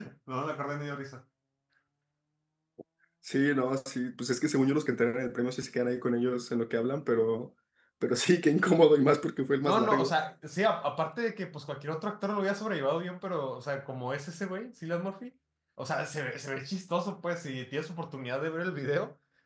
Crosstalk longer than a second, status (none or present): none